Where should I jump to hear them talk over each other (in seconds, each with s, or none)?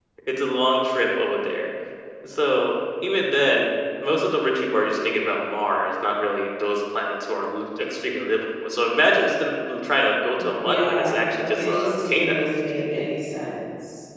10.7 s